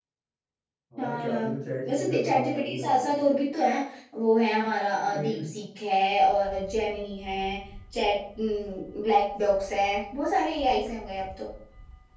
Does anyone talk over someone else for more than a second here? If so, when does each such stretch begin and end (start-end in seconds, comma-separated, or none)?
1.9-3.2